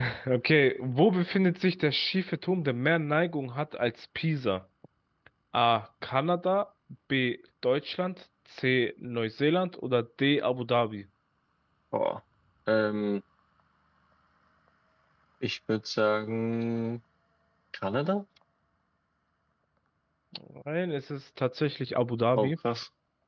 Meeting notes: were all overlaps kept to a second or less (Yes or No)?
Yes